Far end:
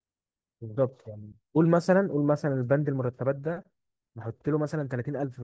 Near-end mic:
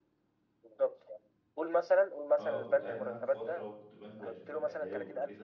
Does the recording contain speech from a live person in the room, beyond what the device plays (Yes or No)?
Yes